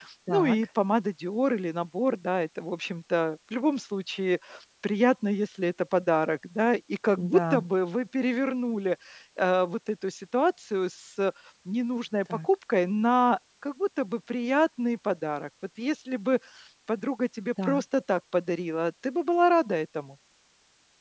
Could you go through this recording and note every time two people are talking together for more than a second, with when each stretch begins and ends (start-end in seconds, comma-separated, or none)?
none